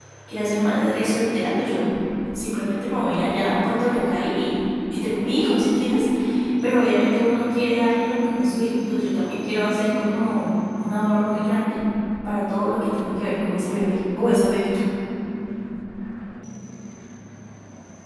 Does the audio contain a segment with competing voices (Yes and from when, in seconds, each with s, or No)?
No